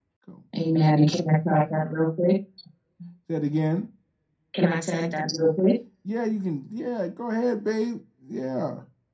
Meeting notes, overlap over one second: present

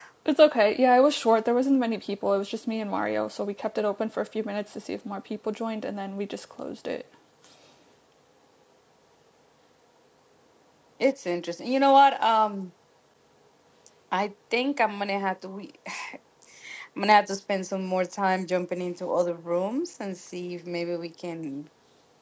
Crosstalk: none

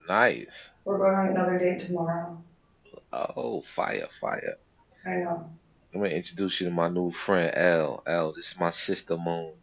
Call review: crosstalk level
none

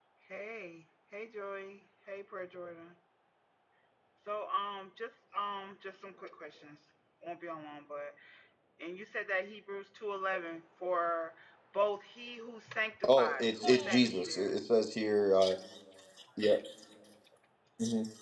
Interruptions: present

